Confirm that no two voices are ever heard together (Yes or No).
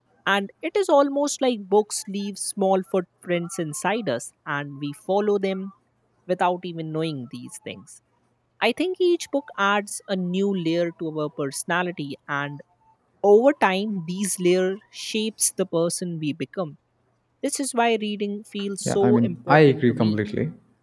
No